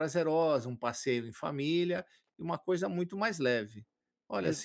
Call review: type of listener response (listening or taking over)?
listening